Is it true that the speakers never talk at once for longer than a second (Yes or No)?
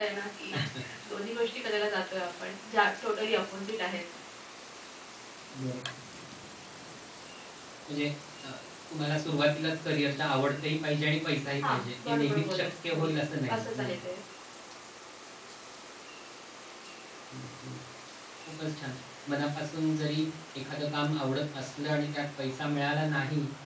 No